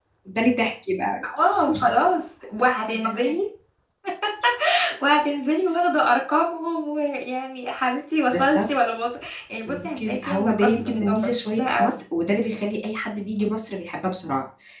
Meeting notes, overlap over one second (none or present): present